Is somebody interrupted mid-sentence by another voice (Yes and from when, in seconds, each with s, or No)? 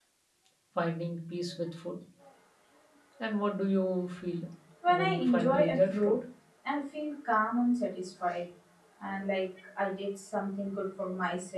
Yes, from 4.9 s